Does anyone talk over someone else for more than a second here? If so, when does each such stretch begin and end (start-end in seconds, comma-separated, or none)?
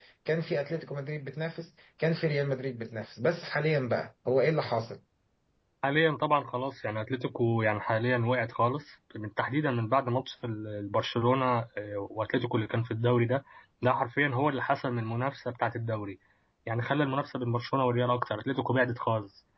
none